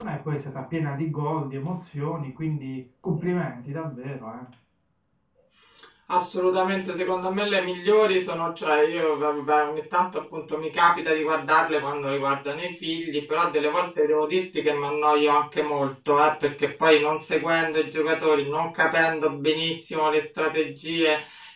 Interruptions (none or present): none